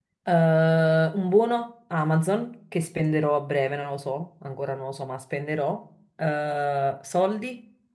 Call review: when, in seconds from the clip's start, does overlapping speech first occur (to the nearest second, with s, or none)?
none